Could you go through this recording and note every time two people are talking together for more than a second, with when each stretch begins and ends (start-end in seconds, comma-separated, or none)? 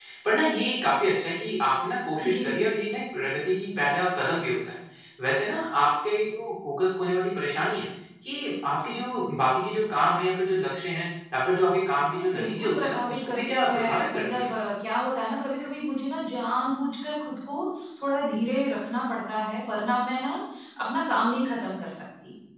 12.1-14.5